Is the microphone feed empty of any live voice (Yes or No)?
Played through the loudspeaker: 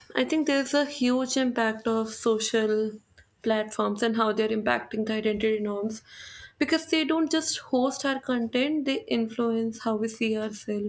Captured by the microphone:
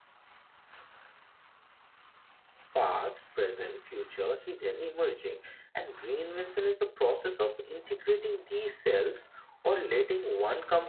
No